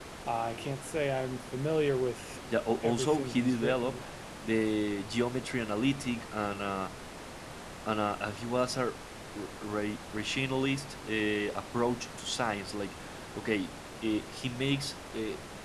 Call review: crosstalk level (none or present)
present